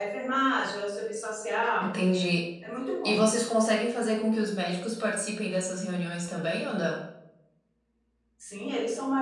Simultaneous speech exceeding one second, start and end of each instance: none

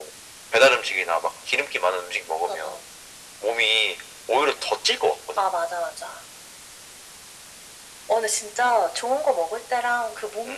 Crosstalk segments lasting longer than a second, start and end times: none

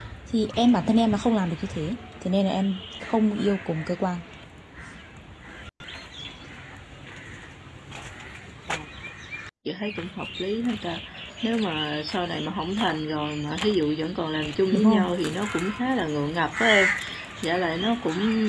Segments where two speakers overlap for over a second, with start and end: none

